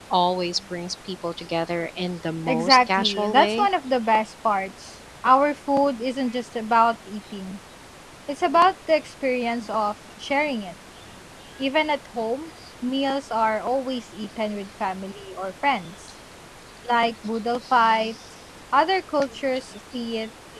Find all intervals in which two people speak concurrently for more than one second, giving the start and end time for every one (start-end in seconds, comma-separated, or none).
2.5-3.7